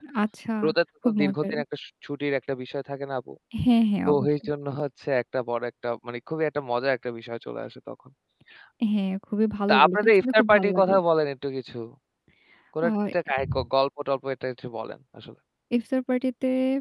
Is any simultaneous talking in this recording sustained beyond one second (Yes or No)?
Yes